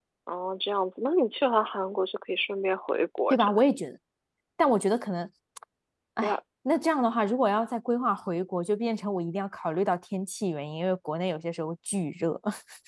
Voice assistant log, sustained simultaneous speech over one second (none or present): none